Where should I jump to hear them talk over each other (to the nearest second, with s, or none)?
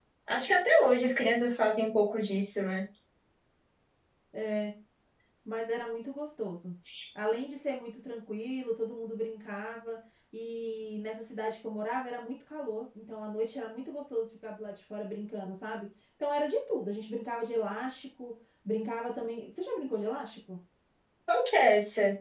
none